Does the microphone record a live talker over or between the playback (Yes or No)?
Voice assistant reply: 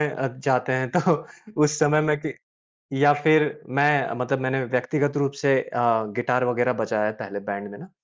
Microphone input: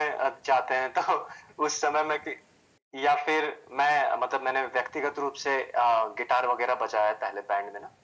No